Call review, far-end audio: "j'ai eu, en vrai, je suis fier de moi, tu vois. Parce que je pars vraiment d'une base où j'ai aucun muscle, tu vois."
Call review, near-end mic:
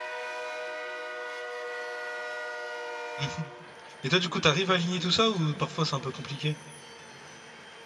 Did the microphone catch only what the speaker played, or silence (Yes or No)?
No